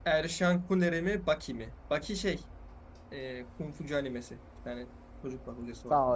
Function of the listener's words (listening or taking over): taking over